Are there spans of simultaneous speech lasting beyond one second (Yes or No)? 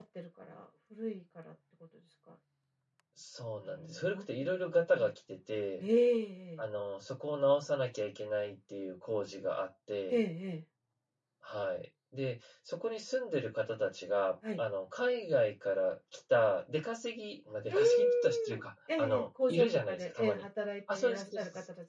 Yes